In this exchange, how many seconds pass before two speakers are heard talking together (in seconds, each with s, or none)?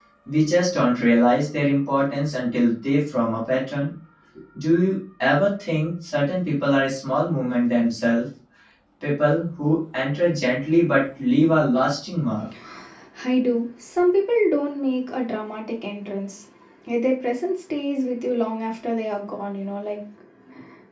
none